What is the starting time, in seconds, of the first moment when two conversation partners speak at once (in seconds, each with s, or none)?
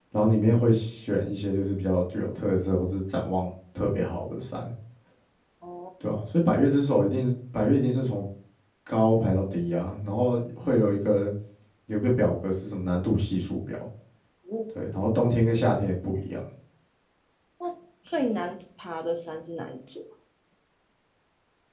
none